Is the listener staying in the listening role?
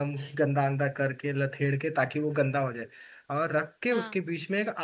Yes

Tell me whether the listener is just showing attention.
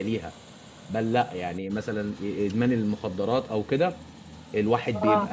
Yes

